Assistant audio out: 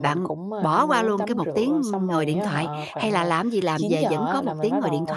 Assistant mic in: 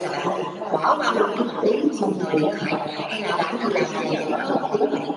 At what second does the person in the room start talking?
none

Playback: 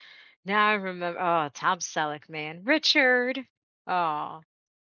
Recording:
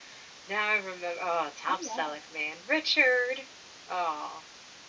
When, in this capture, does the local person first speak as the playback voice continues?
1.7 s

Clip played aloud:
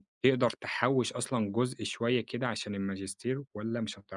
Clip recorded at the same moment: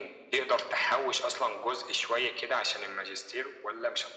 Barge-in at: none

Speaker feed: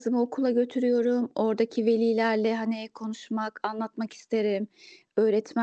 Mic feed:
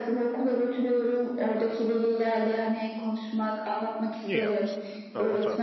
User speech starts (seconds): 4.3 s

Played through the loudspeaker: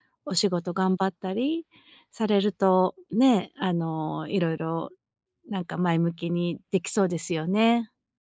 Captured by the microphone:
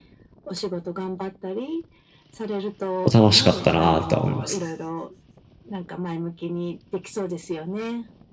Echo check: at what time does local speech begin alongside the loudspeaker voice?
3.0 s

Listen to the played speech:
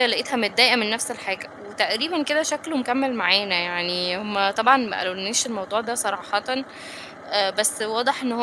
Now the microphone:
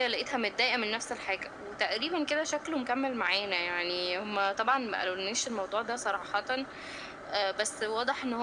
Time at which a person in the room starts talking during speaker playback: none

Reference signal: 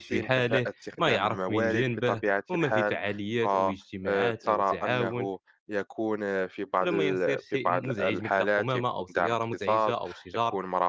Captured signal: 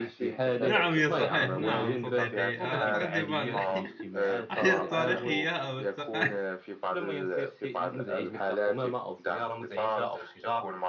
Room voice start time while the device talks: 0.6 s

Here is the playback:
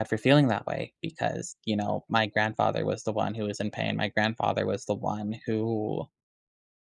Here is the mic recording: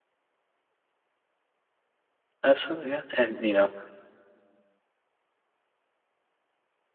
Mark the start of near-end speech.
2.4 s

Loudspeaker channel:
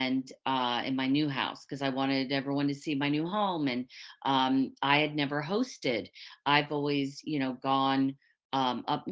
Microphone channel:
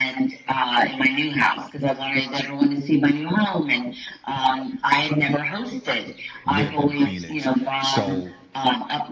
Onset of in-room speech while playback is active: 6.5 s

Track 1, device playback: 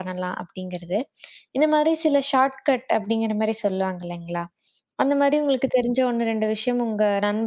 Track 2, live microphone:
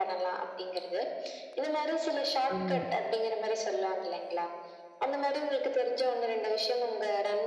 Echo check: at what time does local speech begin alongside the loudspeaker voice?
2.5 s

